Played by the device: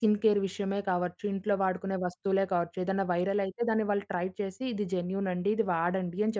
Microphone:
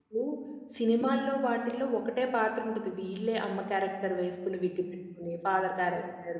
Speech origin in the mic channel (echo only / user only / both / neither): user only